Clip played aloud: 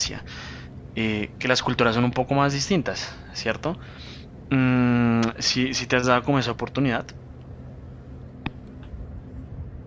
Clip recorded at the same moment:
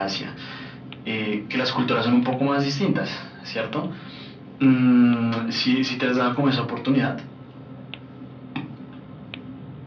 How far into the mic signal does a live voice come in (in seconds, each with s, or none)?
none